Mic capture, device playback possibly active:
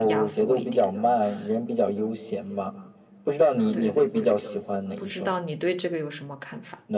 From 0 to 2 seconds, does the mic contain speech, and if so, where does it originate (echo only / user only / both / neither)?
both